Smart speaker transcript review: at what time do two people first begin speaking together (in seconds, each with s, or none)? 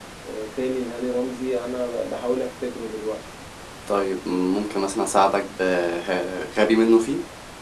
none